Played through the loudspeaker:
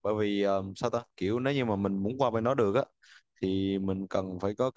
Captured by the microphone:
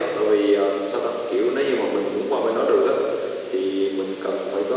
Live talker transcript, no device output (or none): none